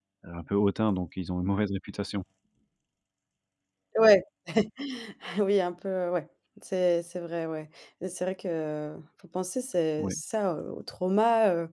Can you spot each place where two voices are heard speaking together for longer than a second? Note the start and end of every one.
none

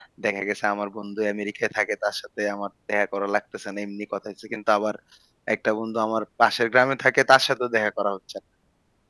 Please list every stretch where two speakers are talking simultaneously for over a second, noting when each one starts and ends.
none

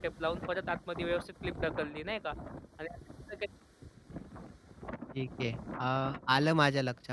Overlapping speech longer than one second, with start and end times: none

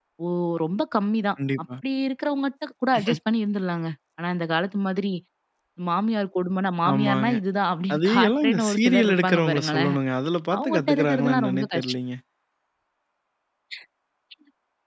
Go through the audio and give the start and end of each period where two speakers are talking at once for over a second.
7.9-9.9, 10.6-11.9

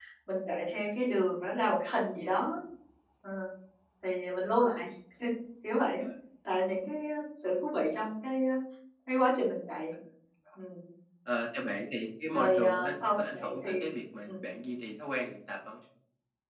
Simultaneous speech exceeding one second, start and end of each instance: 12.3-13.7

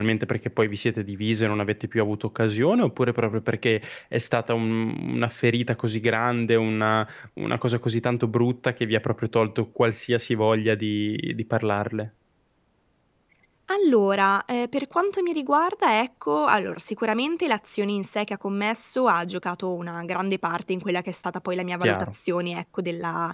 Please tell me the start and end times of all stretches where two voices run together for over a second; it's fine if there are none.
none

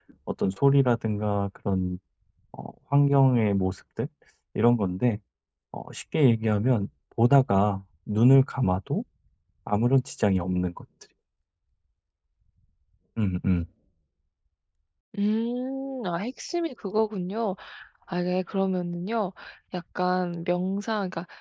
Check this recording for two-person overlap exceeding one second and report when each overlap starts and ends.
none

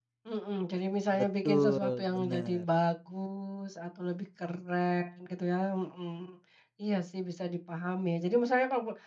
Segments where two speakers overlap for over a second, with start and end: 1.1-2.6

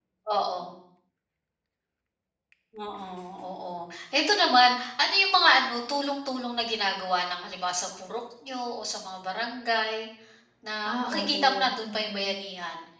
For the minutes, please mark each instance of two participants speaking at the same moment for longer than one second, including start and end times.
10.8-12.3

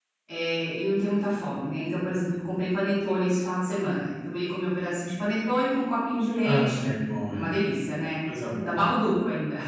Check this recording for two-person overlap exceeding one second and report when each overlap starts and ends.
none

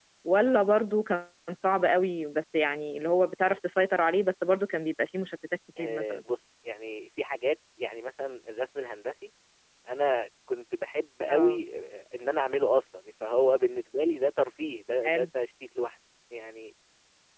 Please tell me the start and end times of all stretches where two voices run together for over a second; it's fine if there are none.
none

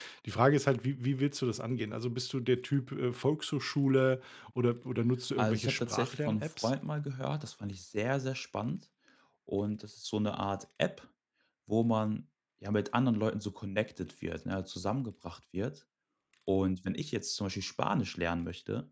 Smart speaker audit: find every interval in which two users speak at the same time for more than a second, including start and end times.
5.4-6.7

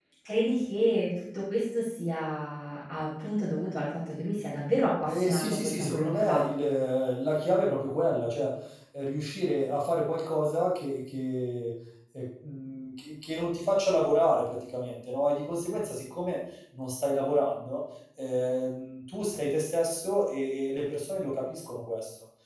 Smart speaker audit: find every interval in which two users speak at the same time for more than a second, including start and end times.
5.1-6.5

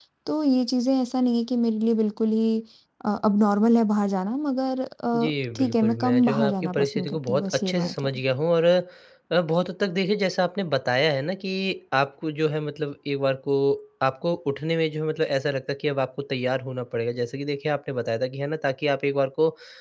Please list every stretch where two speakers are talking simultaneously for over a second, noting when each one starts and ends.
5.2-8.1

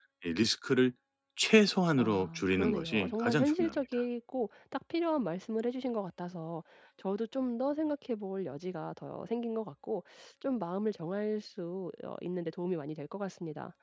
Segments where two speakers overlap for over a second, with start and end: 2.0-4.0

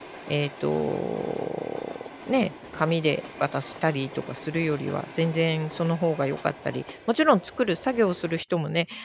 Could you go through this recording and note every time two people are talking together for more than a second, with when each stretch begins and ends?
none

